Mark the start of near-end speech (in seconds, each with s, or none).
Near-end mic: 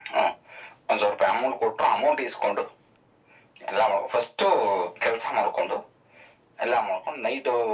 none